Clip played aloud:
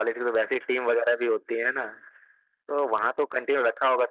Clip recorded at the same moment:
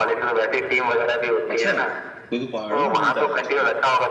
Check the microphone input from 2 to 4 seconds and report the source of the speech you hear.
both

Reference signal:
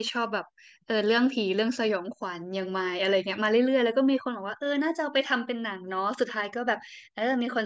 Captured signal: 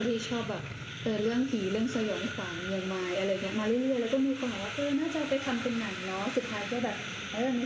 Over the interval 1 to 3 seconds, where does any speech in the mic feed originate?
echo only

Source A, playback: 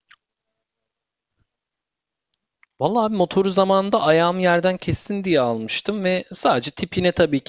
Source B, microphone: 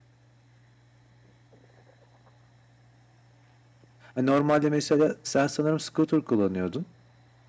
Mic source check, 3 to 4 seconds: neither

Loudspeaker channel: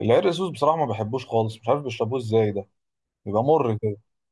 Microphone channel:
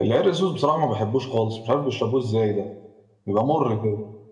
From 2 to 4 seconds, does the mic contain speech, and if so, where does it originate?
echo only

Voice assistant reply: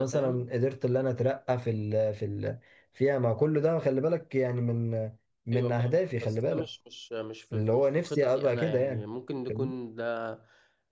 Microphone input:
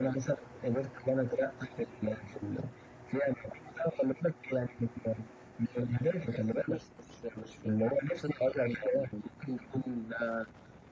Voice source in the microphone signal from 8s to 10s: echo only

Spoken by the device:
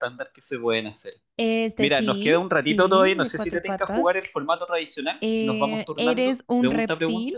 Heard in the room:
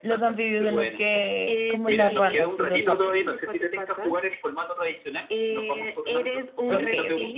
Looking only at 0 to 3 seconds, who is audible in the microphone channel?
both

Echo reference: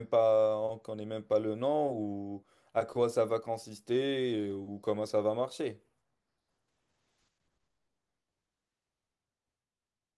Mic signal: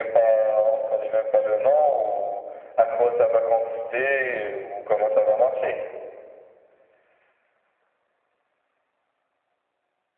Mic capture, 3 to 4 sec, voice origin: echo only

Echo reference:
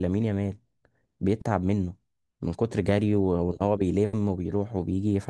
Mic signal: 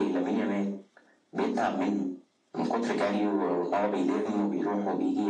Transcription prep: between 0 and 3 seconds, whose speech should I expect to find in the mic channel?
echo only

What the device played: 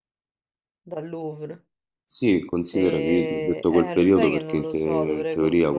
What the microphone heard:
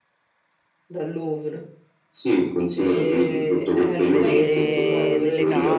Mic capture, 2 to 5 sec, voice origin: both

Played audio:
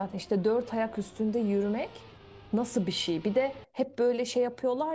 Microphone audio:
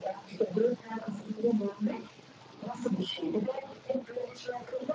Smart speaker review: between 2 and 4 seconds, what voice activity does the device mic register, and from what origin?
echo only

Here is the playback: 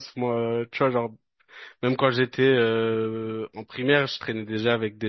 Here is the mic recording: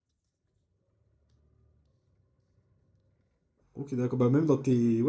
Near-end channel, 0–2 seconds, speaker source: neither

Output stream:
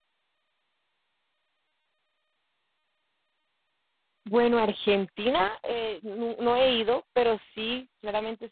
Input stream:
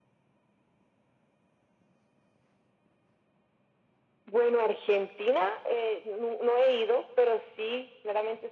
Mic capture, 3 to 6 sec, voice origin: echo only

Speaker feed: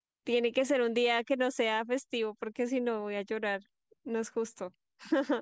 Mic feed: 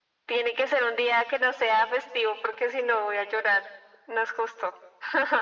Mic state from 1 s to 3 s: echo only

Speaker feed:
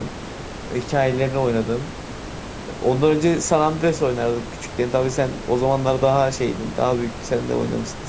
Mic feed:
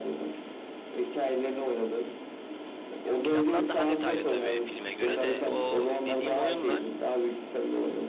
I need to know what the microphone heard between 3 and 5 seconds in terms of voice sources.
both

